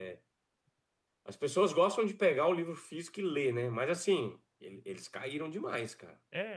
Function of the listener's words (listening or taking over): taking over